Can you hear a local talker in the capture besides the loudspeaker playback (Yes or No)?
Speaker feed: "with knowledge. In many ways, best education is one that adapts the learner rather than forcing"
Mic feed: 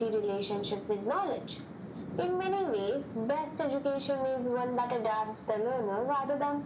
No